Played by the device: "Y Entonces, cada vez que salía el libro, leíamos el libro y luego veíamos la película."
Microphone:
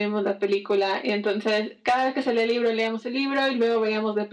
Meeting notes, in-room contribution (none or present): none